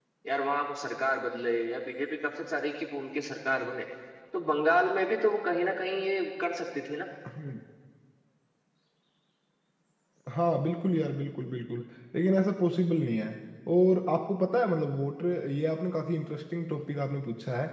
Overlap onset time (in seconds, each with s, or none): none